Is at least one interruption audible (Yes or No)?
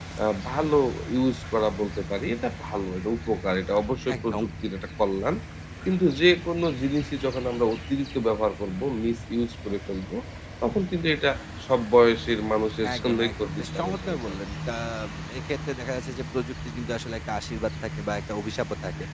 Yes